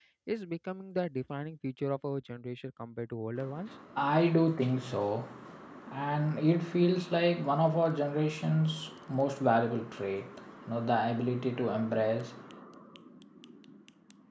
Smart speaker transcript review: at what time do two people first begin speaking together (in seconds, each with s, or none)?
none